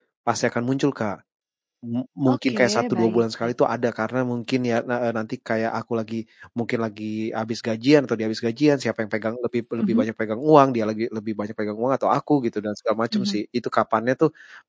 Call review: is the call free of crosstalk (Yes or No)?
No